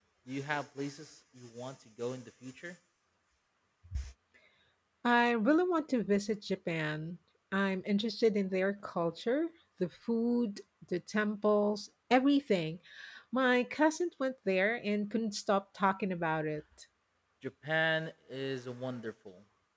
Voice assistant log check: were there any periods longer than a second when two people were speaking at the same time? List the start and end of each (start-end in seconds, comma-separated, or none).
none